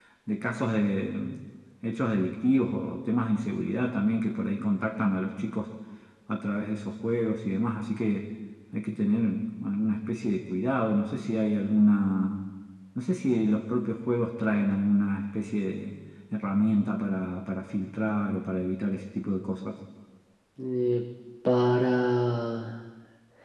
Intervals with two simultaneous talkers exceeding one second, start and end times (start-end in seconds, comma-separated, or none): none